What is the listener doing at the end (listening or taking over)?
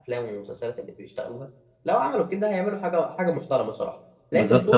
taking over